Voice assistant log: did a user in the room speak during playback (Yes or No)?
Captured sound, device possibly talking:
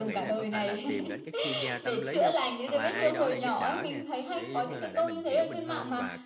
Yes